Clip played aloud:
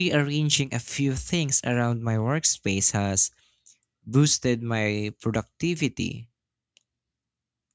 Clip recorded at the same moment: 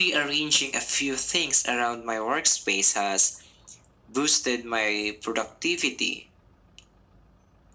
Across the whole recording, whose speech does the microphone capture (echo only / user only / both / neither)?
echo only